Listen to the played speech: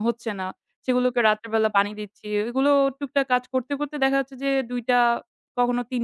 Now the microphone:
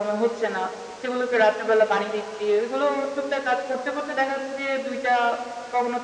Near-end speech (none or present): none